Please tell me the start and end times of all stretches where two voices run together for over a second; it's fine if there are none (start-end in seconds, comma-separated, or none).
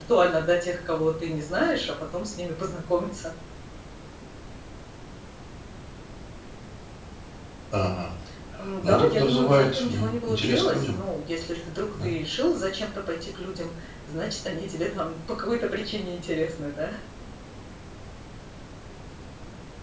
8.8-11.0